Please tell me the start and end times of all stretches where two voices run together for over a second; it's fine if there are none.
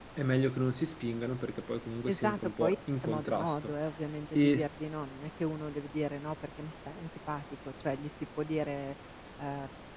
2.1-3.6

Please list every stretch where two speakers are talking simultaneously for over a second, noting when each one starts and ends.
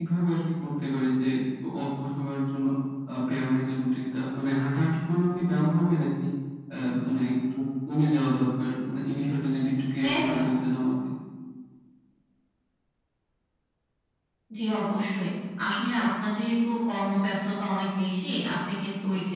none

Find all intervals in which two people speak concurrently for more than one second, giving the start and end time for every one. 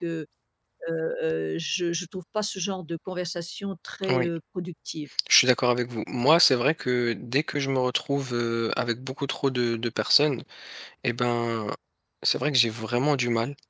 none

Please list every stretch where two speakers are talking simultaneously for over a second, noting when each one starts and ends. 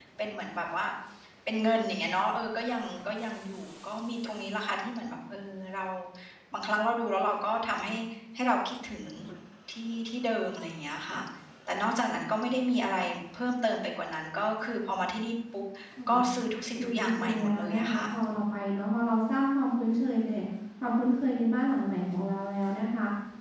16.8-18.1

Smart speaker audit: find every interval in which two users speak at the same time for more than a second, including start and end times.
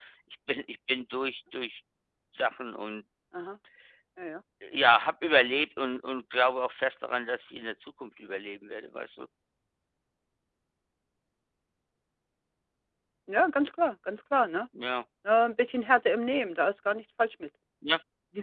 none

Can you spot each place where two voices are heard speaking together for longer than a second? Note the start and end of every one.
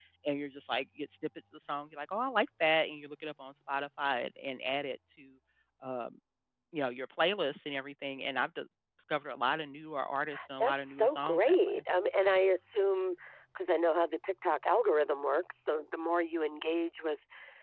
10.6-11.8

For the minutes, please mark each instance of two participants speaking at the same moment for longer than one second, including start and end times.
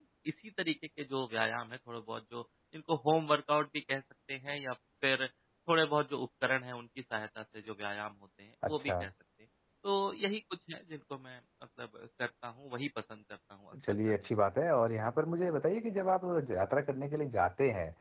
none

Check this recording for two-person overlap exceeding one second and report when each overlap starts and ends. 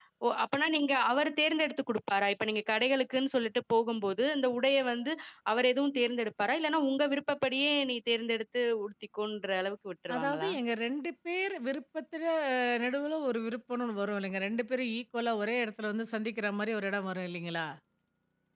none

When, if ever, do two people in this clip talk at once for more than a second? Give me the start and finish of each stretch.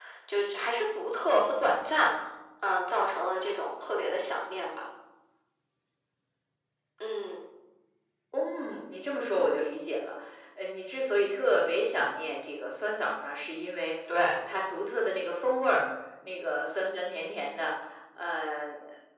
none

